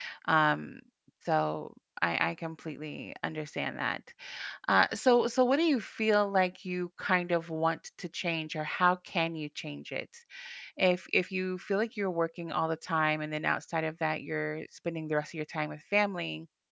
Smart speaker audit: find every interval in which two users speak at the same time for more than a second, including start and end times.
none

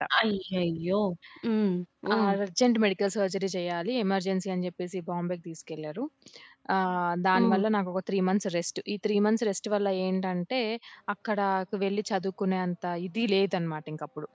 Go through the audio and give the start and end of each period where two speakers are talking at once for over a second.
none

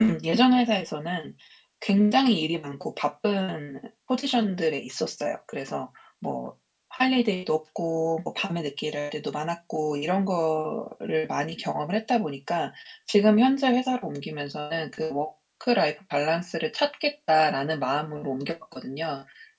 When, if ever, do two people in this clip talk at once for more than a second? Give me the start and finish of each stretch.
none

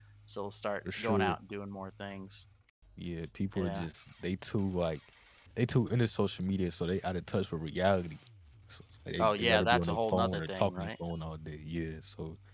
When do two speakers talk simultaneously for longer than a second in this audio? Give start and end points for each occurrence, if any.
9.2-10.9

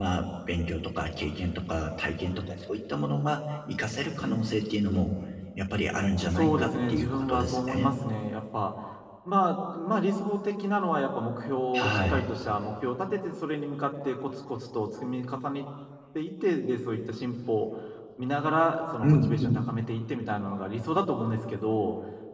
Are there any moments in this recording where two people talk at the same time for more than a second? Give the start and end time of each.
6.3-8.0

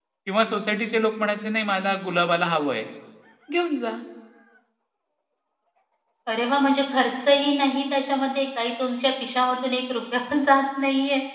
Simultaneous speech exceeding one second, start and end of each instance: none

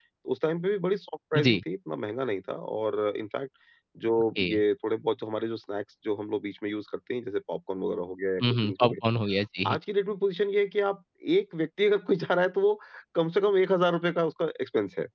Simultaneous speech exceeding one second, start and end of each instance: none

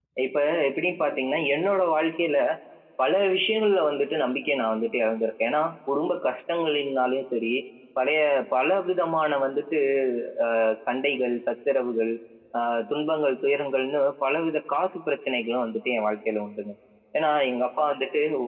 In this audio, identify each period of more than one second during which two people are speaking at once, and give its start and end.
none

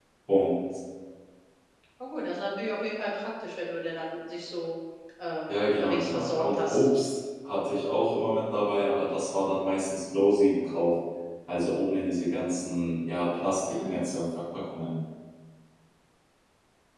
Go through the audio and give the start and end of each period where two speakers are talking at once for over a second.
5.5-6.9

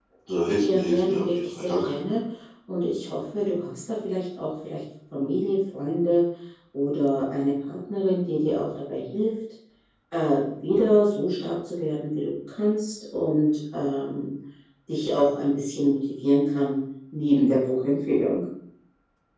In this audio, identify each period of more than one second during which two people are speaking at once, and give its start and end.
0.6-2.0

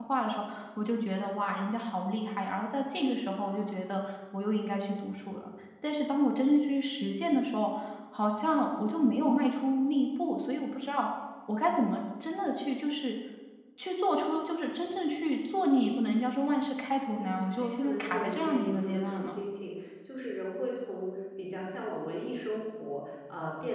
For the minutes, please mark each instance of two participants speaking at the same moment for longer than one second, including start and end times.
17.1-19.3

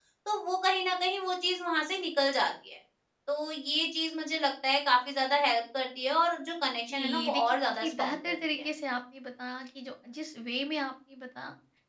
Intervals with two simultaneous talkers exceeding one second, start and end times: 6.9-8.6

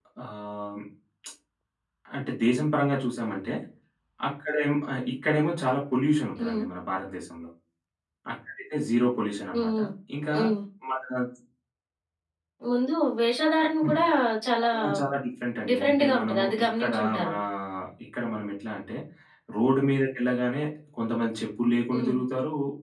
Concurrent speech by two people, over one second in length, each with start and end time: 15.7-17.3

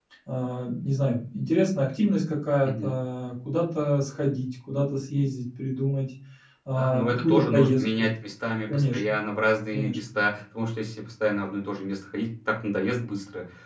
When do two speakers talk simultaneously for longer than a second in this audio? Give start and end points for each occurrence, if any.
6.8-8.1

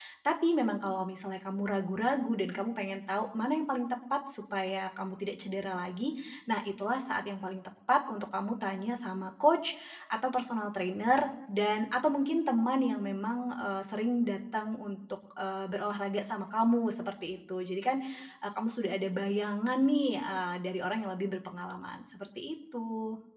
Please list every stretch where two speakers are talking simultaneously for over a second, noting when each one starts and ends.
none

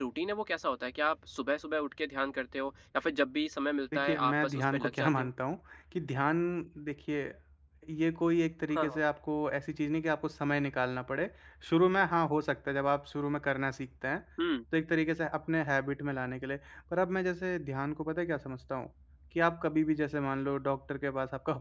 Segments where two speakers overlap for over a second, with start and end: 3.9-5.3

